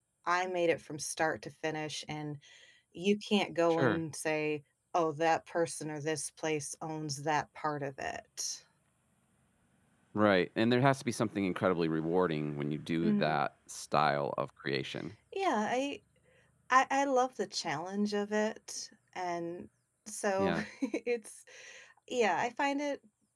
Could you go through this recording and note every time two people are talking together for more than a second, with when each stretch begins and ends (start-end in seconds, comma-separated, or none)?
none